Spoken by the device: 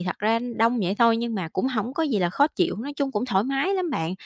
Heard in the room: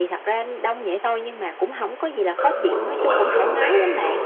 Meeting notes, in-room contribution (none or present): present